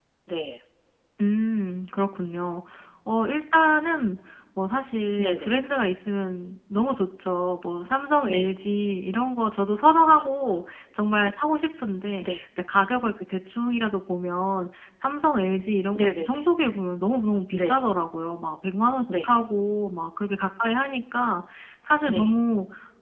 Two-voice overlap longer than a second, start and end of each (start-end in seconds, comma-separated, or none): none